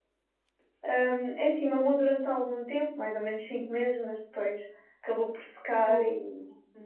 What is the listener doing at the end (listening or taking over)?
listening